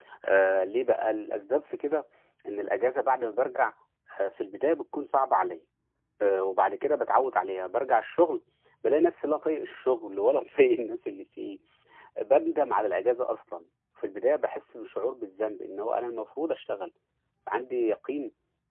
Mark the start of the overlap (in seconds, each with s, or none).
none